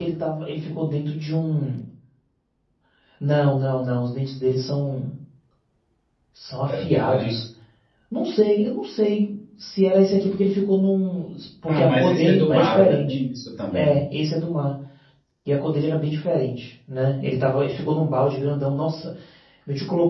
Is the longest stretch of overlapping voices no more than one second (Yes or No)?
No